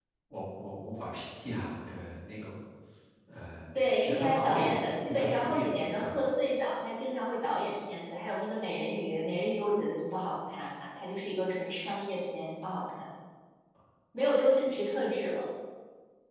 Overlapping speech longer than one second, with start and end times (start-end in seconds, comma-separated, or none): 4.0-6.2